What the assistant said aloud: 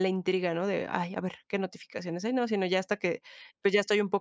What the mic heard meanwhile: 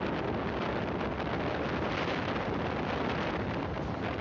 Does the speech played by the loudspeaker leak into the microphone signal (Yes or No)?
No